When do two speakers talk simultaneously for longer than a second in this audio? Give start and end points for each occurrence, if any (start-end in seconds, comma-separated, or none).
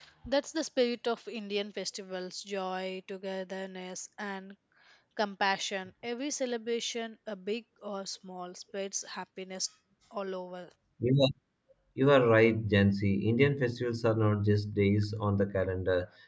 none